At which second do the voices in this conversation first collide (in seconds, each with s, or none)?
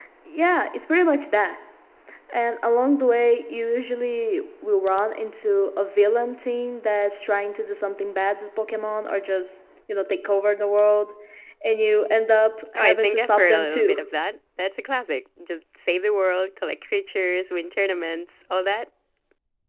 12.8 s